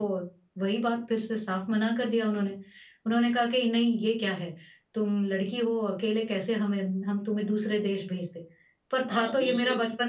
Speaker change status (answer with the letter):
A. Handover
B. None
A